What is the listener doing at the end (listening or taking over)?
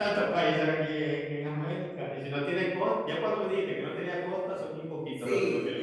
taking over